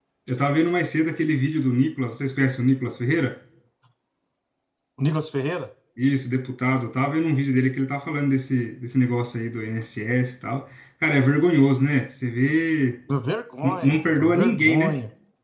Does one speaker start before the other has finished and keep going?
Yes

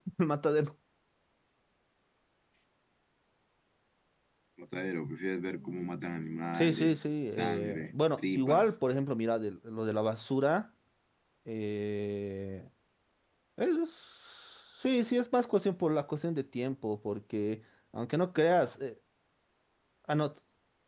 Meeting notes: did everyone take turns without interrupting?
No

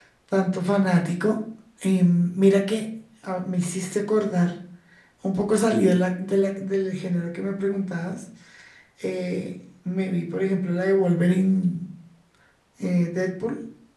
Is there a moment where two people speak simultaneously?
No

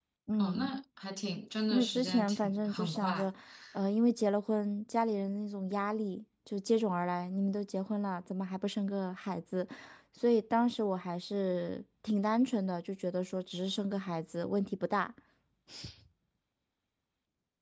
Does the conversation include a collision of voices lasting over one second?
Yes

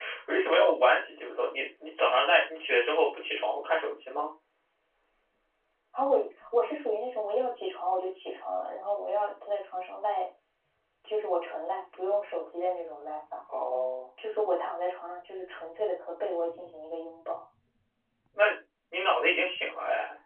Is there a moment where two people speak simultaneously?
No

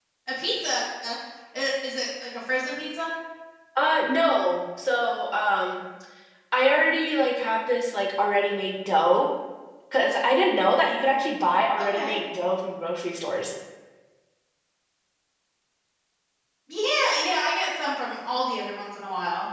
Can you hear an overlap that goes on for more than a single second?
No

